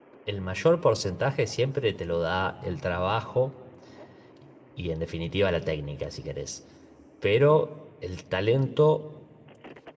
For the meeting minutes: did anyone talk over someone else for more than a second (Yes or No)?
No